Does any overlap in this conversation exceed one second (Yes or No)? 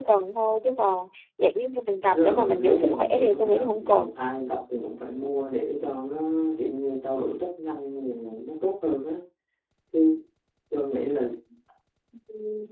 Yes